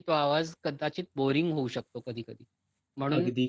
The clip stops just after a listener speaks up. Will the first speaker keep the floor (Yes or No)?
Yes